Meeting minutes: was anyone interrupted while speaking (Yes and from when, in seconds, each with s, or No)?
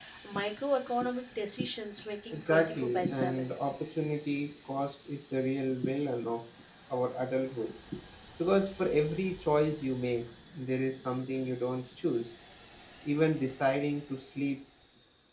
Yes, from 2.3 s